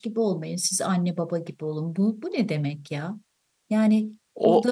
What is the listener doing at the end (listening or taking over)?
listening